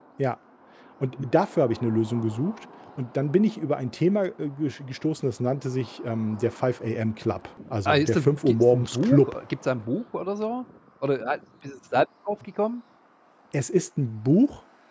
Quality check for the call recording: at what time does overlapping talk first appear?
8 s

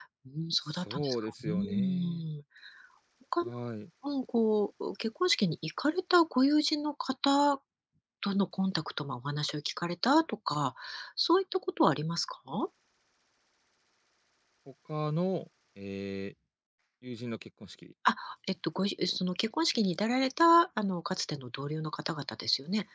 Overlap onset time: 1 s

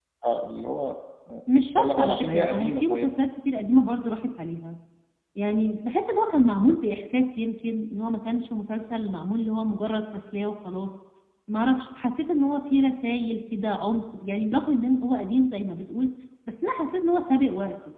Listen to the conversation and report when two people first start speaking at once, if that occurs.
2 s

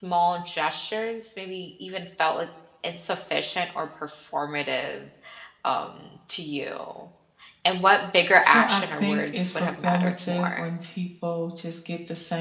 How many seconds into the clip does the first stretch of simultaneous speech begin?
8 s

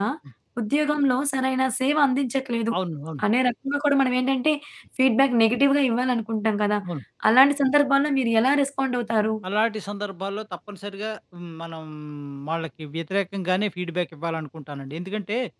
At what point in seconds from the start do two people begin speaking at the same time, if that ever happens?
none

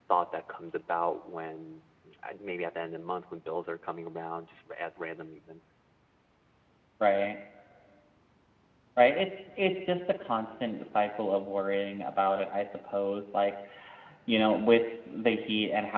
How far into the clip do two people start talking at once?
none

